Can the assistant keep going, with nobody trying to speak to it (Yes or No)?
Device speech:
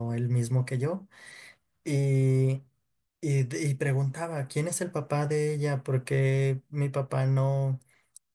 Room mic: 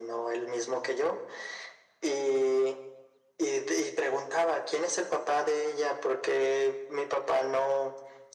Yes